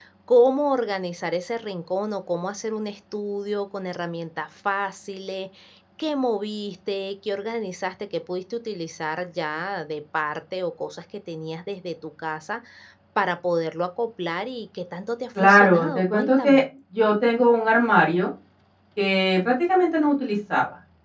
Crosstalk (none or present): present